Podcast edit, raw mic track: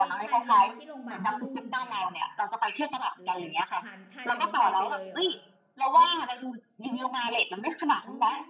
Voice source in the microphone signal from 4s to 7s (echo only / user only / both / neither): both